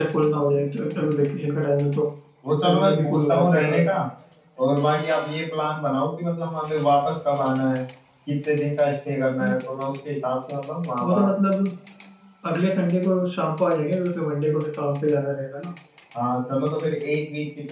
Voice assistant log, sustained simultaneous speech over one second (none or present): present